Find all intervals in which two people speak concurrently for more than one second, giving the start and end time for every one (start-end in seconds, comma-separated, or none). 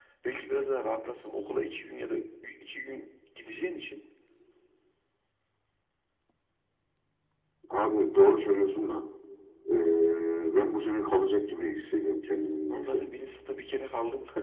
none